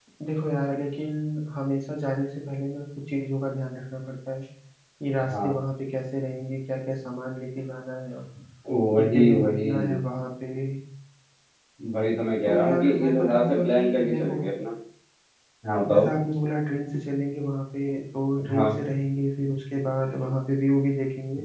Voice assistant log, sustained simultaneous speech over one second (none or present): present